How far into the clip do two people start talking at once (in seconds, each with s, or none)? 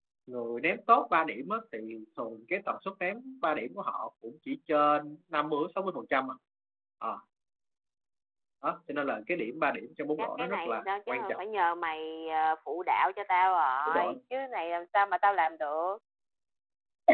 10.2 s